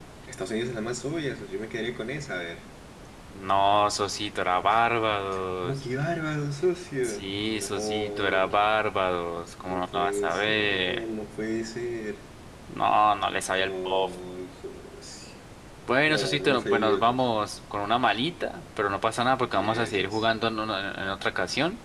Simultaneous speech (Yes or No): Yes